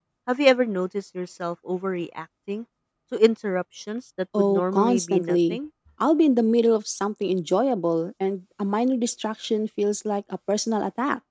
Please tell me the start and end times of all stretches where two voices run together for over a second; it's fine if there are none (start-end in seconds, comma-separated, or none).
4.4-5.6